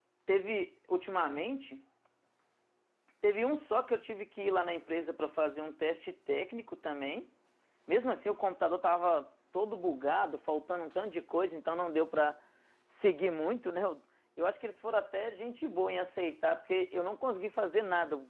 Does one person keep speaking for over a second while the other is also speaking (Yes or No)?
No